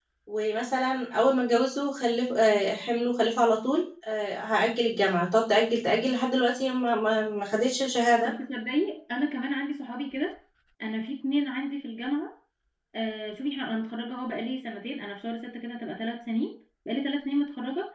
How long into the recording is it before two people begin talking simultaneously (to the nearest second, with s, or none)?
none